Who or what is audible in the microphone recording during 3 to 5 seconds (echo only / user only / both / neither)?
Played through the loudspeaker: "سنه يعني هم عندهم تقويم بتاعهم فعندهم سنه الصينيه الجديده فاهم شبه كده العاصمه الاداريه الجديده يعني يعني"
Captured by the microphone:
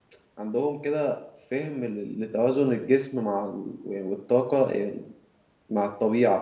user only